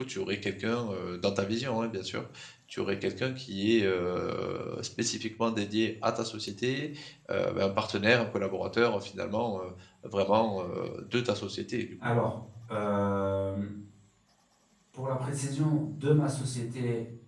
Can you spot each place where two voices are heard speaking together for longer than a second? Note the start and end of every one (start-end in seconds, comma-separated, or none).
none